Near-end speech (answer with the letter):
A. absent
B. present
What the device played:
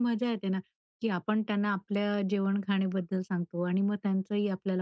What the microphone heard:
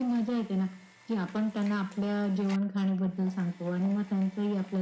A